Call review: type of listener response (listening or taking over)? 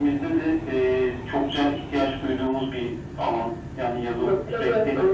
taking over